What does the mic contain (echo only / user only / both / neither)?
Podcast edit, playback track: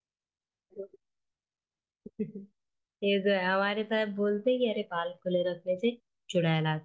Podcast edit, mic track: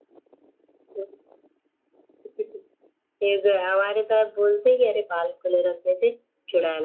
echo only